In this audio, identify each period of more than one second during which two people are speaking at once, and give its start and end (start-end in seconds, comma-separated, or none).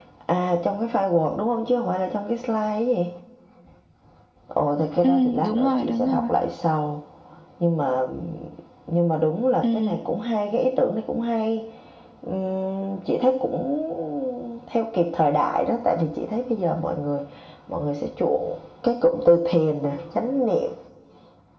5.0-6.3